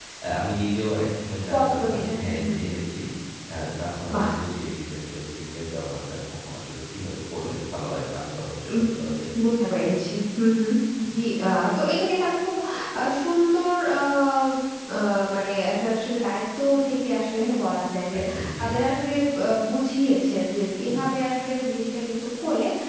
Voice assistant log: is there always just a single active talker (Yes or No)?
No